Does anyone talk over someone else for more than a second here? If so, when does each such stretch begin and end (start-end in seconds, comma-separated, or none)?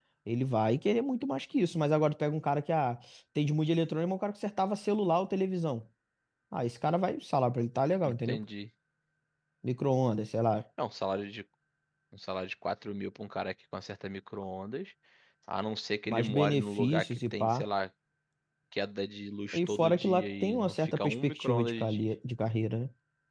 16.1-17.6, 19.5-22.1